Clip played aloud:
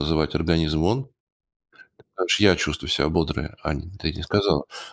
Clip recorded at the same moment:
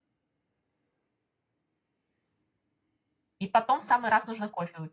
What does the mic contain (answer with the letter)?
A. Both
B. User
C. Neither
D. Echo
B